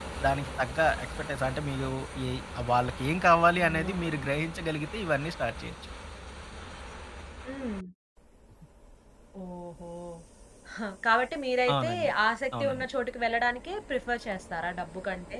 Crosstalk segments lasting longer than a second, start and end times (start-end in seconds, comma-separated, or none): none